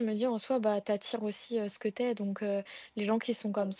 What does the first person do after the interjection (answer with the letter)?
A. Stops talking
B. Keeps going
B